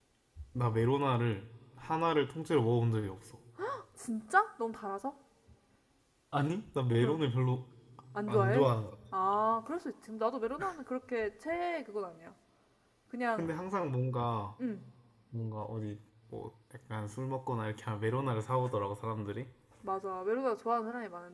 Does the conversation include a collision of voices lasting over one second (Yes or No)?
No